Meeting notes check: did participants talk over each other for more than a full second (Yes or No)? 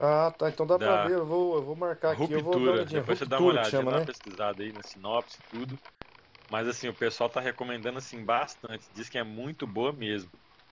Yes